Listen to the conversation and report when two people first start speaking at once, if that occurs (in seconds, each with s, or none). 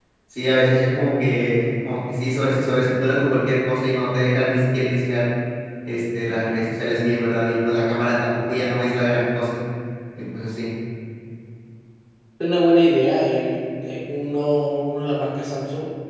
none